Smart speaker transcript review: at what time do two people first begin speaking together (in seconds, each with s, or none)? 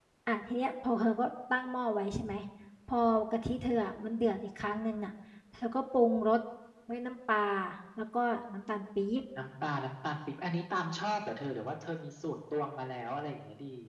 none